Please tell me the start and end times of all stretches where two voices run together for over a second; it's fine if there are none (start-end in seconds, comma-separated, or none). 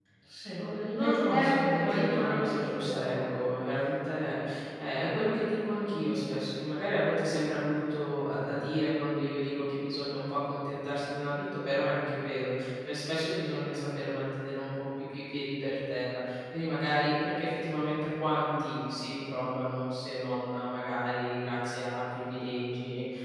0.6-3.3